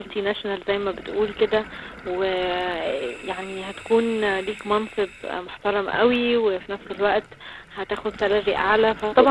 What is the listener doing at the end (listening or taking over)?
listening